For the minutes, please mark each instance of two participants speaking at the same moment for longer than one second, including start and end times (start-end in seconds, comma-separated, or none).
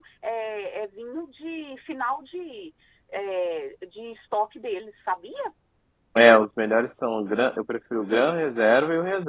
none